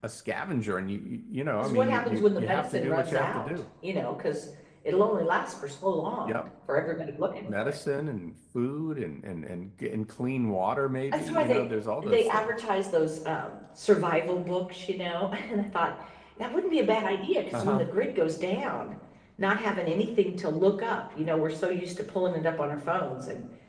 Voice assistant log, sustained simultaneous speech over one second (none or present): present